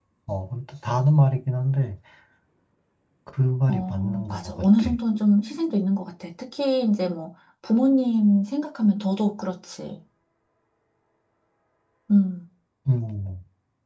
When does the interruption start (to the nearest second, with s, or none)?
4 s